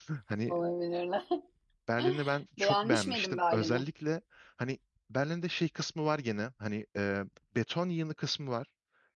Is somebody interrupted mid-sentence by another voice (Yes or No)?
Yes